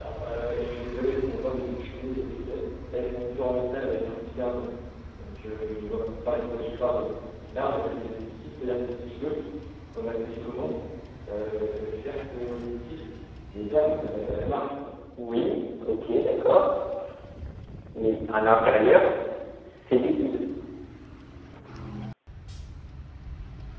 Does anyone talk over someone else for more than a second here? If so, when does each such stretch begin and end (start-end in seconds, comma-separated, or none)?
none